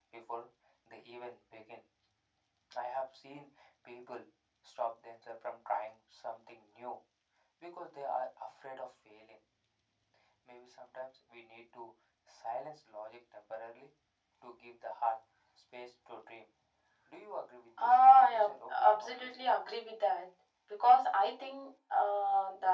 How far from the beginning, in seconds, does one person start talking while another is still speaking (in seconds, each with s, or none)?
17.8 s